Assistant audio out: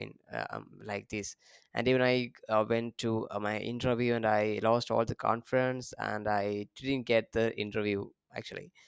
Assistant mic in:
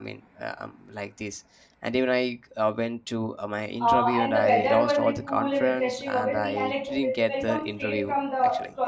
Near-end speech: present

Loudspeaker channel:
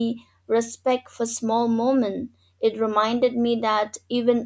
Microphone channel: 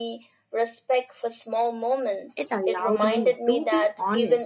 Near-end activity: present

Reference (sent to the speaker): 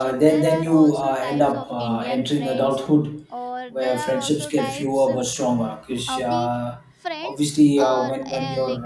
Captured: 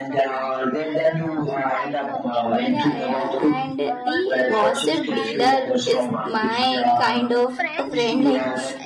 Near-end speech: present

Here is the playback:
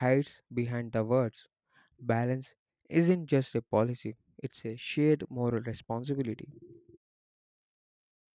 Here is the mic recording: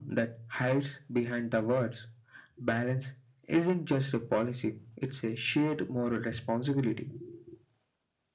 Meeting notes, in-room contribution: none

